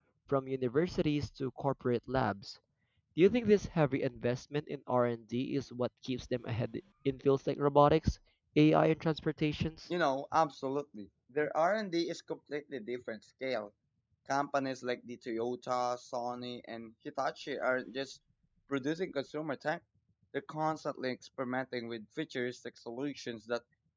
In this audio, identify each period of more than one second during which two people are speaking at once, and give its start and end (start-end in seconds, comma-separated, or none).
none